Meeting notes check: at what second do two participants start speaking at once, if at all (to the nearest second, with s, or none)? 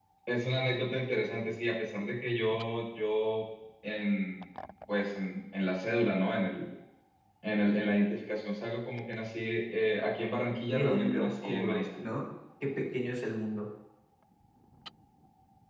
11 s